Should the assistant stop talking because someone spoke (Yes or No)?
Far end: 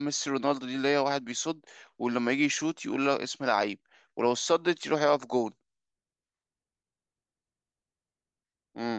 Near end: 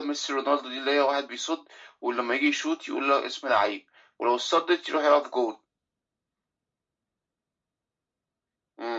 No